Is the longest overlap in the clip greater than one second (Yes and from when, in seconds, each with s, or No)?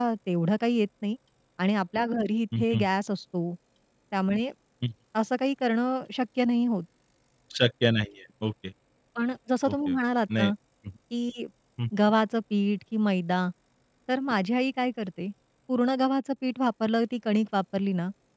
No